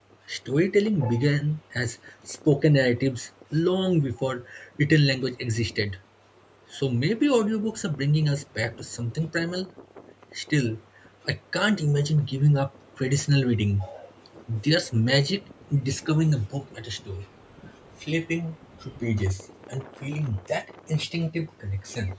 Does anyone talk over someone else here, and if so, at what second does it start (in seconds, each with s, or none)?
none